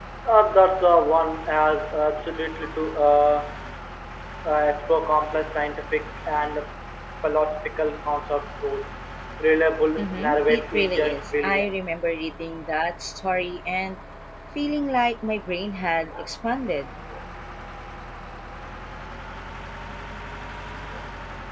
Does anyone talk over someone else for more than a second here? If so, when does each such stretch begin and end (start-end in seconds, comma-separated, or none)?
10.0-11.8